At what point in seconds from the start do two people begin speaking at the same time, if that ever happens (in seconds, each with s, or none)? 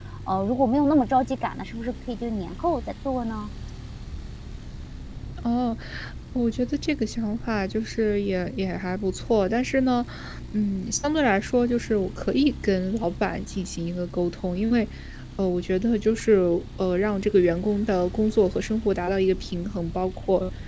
none